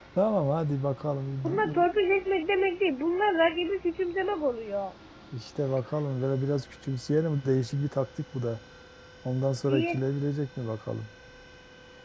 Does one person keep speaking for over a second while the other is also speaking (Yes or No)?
No